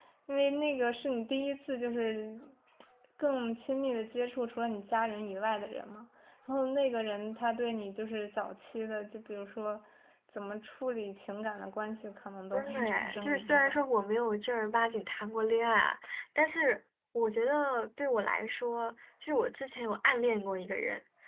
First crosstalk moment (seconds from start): 12.5 s

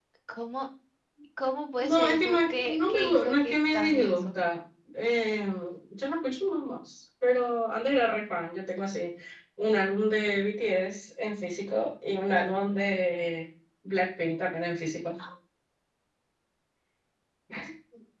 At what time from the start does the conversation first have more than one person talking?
1.8 s

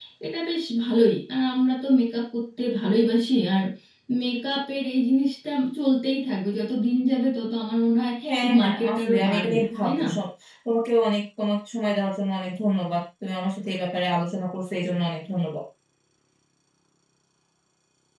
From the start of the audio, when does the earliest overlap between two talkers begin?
8.2 s

